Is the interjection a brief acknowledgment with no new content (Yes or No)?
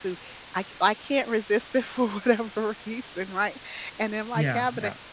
Yes